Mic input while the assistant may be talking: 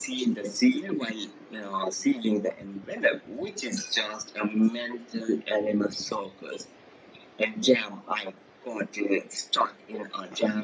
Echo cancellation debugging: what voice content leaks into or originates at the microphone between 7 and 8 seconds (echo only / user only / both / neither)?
echo only